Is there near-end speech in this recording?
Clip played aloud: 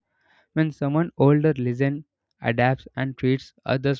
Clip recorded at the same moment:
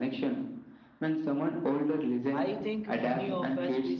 Yes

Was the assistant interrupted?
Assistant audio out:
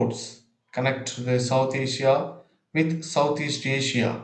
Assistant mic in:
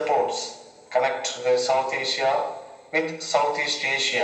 No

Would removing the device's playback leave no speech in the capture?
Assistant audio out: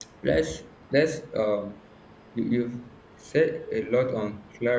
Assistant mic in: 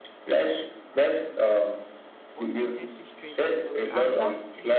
No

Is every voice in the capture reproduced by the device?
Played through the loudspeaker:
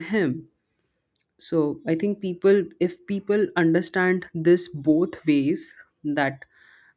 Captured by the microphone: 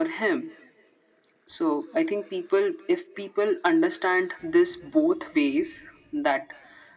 Yes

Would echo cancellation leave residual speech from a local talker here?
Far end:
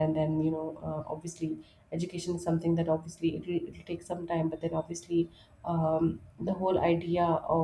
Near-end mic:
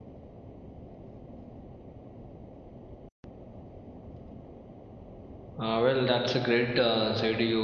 Yes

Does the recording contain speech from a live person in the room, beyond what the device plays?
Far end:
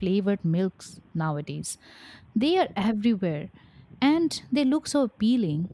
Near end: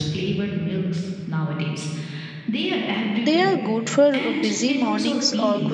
Yes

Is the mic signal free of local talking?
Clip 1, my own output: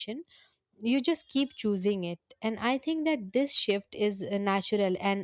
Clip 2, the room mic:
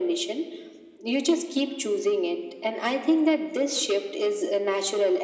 Yes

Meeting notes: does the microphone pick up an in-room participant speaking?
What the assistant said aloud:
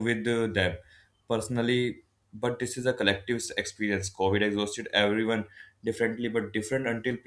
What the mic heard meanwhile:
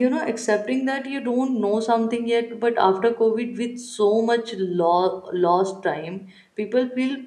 Yes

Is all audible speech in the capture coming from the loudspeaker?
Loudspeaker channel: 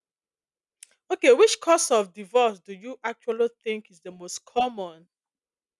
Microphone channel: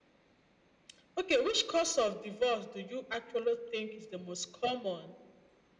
Yes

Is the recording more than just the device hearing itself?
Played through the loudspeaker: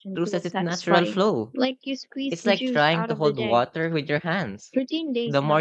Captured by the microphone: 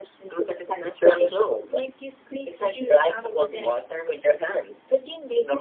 No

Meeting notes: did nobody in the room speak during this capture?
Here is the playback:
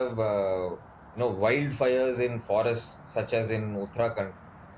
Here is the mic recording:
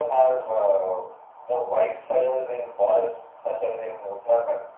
Yes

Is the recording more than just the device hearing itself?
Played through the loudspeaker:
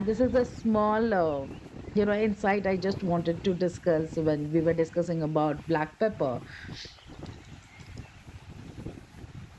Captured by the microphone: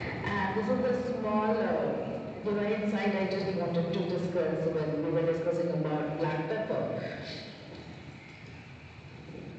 No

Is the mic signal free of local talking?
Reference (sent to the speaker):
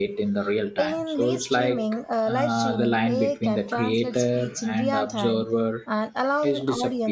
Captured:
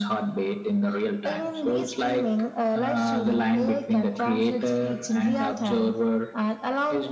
Yes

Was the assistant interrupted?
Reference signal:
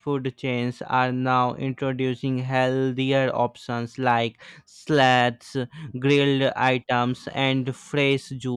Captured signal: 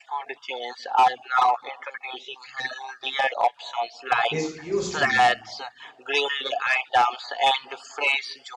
Yes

